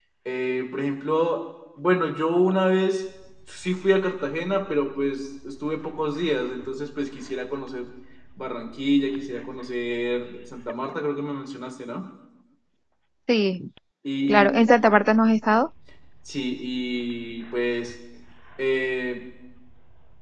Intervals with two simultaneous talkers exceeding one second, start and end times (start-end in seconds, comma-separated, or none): none